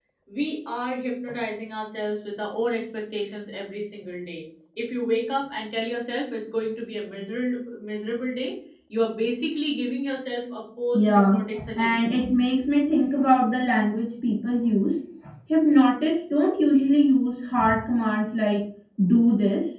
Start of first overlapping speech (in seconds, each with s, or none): 10.9 s